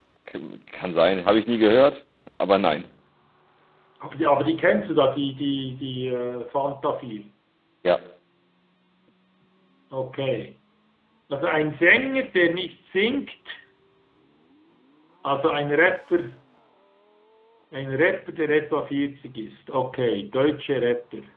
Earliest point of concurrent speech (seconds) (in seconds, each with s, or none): none